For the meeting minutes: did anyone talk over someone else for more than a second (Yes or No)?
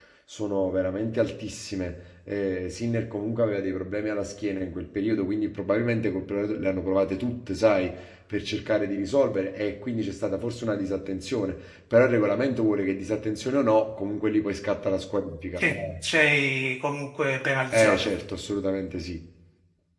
No